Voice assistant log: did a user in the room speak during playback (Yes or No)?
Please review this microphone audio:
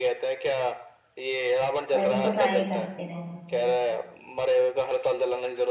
Yes